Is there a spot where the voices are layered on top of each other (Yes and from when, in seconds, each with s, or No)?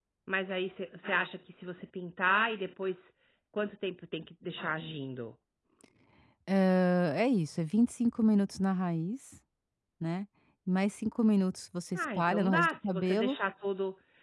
Yes, from 11.9 s